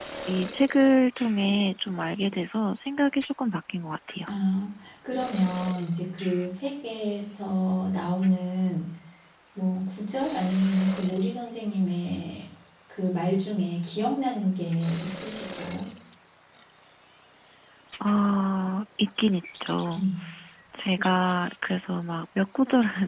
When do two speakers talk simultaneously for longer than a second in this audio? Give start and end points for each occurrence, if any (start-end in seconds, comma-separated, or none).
none